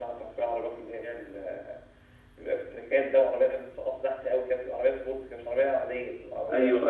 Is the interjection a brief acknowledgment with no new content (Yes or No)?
No